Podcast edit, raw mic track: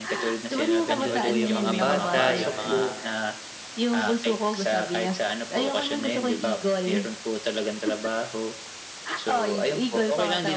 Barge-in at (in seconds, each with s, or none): 0.9 s